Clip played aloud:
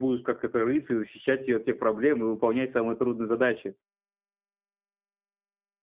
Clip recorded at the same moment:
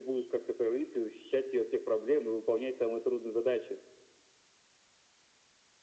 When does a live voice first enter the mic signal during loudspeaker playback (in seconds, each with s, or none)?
none